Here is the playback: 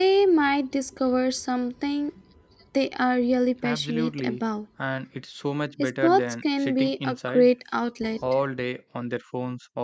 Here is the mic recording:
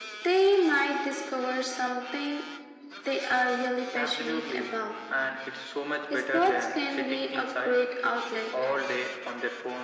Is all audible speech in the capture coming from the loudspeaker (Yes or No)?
Yes